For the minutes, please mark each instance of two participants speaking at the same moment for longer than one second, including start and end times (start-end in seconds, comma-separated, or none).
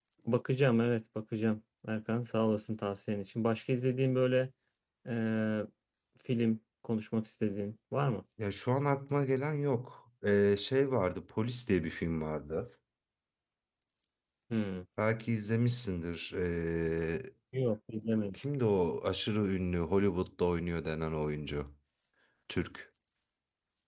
none